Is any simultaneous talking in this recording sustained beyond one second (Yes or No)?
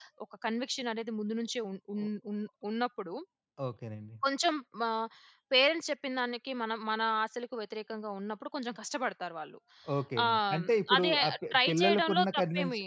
Yes